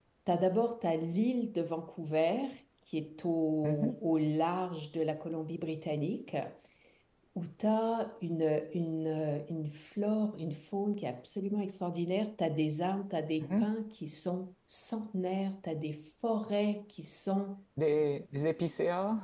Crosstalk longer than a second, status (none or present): none